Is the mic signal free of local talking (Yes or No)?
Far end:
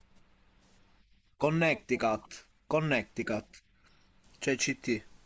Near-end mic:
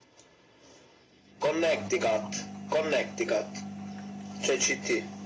Yes